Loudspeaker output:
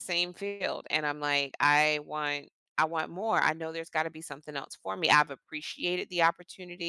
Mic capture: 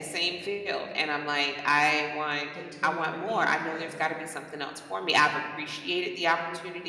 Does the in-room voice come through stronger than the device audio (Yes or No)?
No